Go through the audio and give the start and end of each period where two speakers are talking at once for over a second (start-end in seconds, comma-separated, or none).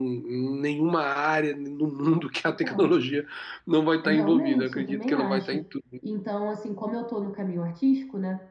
4.0-5.6